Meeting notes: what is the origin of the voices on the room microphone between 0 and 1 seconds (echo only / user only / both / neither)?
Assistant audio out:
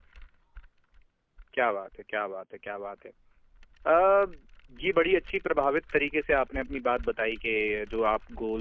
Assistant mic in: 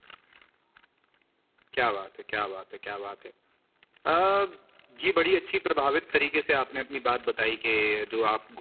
neither